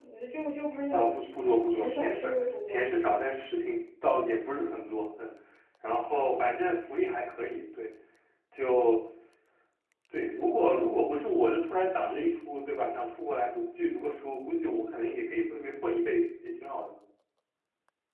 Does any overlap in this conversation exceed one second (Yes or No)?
Yes